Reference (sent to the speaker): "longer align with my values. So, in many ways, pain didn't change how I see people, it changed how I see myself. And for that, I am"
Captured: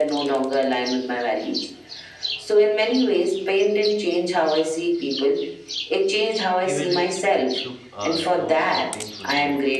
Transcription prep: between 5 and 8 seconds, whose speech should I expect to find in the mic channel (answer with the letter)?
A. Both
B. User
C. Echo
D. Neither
A